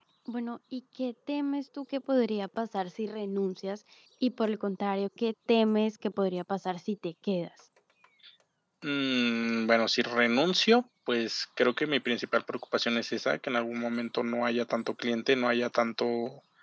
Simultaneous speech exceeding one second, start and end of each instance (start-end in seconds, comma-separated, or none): none